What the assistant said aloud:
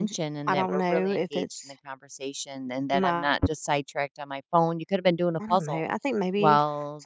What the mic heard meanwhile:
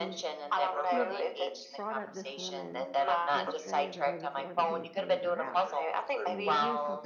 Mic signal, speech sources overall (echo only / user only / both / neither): both